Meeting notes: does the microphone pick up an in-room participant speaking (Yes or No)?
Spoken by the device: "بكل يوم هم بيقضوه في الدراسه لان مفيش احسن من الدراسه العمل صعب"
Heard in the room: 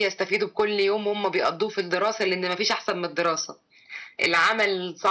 No